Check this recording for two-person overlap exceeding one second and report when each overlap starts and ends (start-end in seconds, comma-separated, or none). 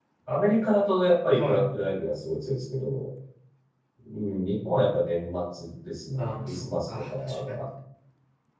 6.2-7.6